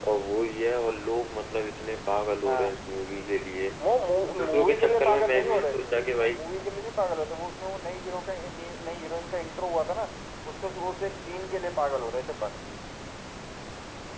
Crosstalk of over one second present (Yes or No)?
Yes